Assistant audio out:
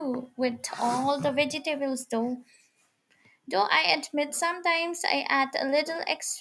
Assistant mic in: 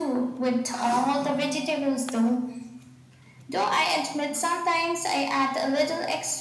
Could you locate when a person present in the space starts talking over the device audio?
none

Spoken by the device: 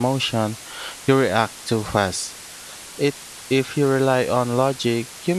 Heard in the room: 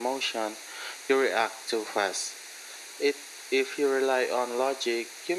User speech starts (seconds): none

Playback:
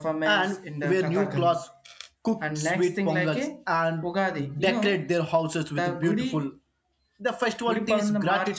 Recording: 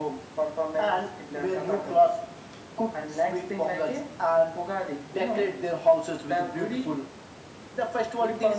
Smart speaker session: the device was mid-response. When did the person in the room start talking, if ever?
none

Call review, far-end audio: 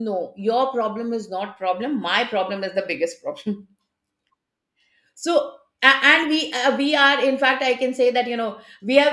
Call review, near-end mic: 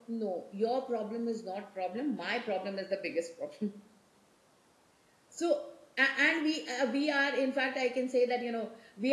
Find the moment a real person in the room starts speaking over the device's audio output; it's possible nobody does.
none

